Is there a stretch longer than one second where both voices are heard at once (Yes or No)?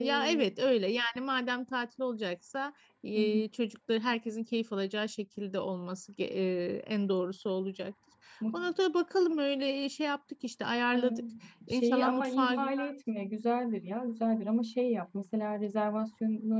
Yes